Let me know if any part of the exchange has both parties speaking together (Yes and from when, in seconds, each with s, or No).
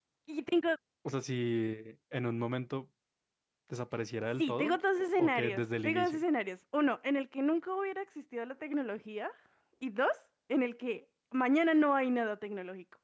Yes, from 4.4 s